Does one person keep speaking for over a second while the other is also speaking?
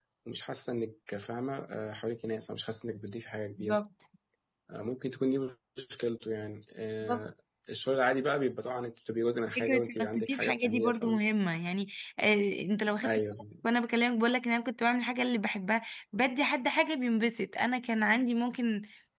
Yes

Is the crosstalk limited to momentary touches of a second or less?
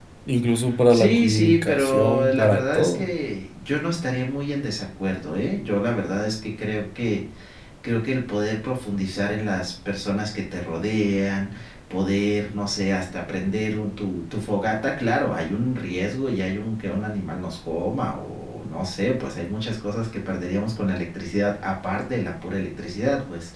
No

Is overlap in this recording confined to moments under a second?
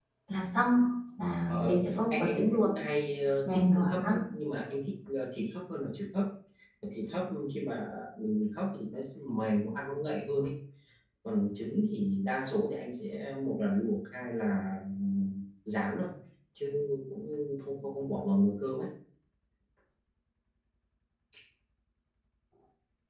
No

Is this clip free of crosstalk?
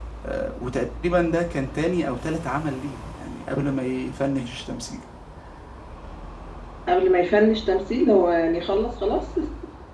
Yes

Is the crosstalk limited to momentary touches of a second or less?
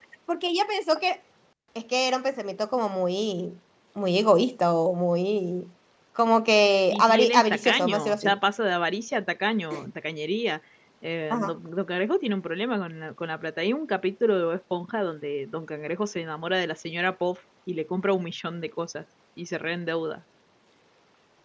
No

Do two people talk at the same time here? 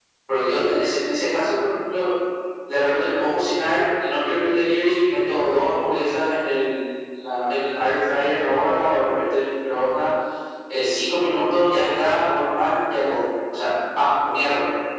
No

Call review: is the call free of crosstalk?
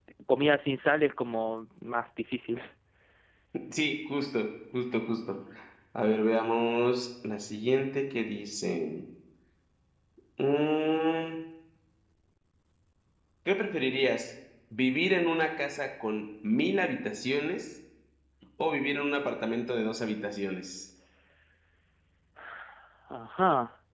Yes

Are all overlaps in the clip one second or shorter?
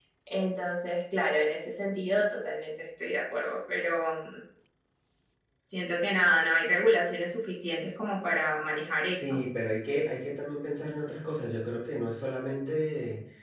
Yes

